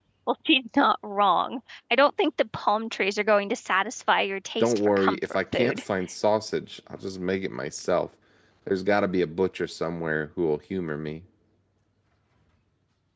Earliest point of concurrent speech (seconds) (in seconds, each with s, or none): 4.6 s